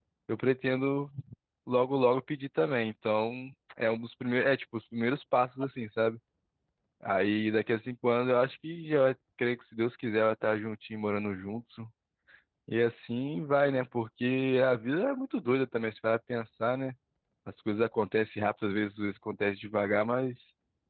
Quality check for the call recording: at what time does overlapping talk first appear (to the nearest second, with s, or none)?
none